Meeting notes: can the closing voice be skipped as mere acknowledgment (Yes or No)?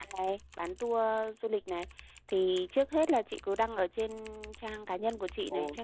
Yes